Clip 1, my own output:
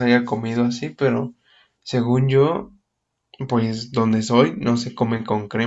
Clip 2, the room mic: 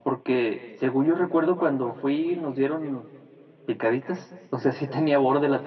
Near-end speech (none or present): present